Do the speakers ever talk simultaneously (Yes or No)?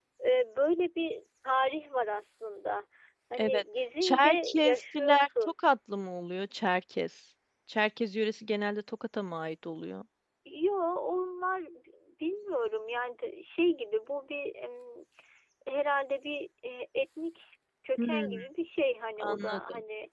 Yes